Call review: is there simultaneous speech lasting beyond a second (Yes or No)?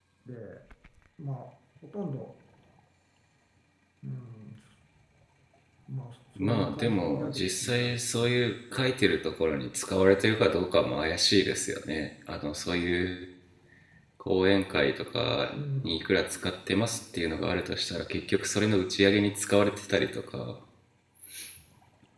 Yes